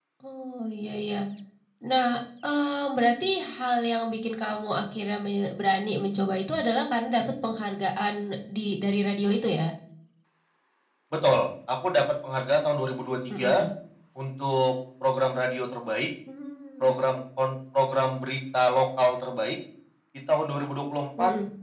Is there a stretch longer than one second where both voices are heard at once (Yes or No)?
No